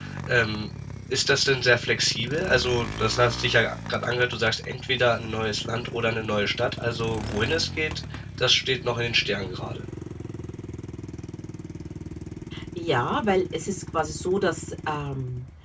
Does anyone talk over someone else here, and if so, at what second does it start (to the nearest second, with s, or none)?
none